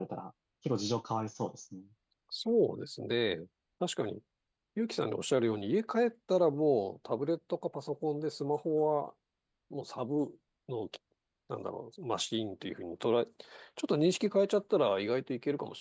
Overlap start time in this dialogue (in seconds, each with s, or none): none